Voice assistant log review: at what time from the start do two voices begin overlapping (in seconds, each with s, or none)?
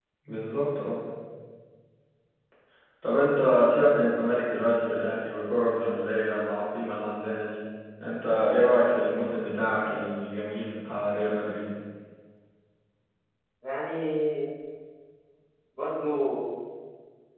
none